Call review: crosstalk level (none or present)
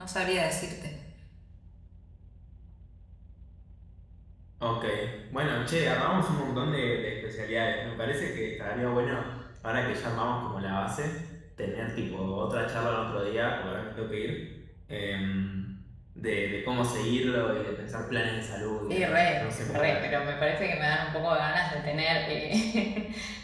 present